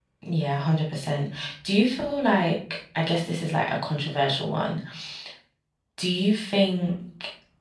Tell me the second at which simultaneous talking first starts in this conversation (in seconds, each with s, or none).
none